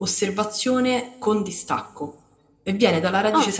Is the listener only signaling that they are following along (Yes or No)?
Yes